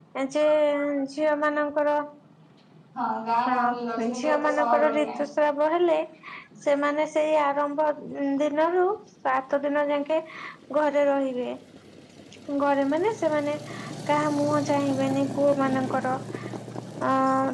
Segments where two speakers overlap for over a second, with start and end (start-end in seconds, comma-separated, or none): 3.5-5.2